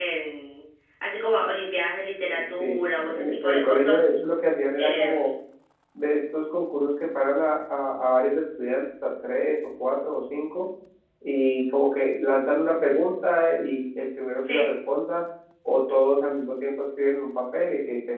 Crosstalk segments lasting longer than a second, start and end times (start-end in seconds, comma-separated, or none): 2.3-4.1